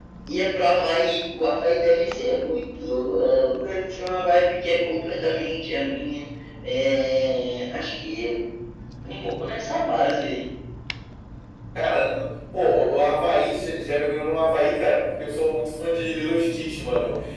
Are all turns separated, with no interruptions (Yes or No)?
Yes